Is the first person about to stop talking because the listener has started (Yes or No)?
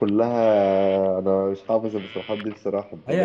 Yes